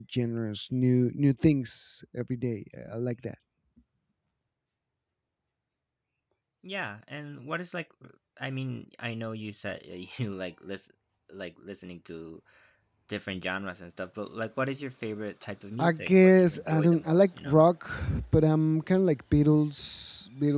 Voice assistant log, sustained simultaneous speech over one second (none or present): present